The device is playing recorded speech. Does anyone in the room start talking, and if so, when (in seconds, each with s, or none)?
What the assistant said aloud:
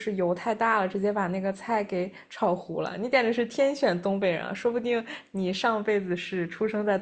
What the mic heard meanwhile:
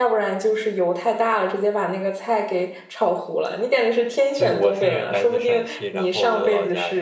4.3 s